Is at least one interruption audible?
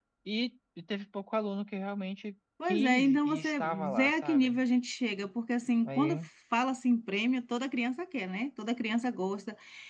Yes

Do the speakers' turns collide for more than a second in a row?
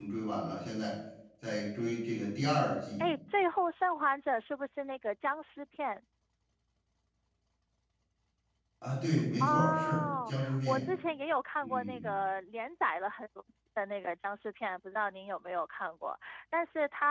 Yes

